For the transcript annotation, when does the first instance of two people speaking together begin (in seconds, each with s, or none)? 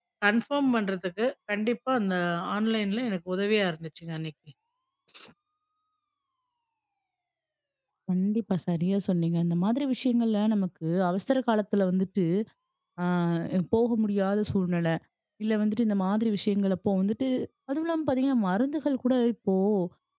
none